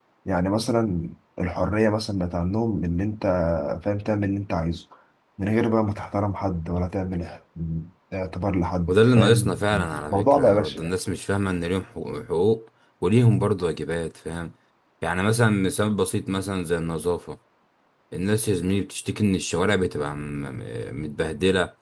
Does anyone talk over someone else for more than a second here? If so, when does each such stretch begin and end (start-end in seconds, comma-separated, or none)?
8.9-10.9